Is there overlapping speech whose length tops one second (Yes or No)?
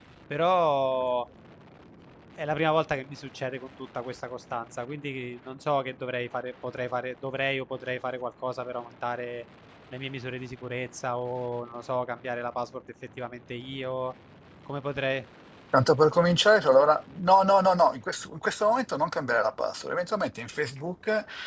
No